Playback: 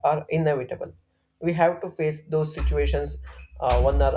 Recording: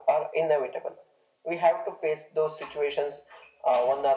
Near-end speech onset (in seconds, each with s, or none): none